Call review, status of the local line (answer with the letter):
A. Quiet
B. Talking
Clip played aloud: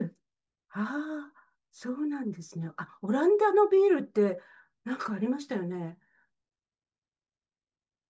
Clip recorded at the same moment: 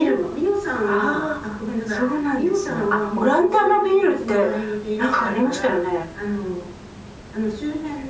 B